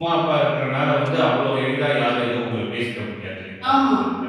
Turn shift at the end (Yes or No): Yes